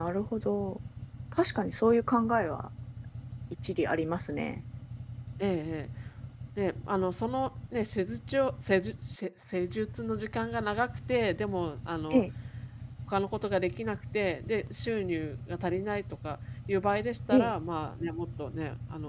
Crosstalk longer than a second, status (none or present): none